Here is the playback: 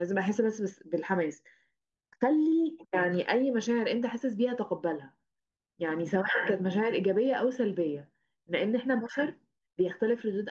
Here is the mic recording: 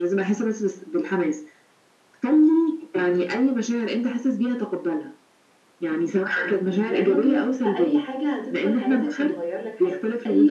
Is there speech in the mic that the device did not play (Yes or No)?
Yes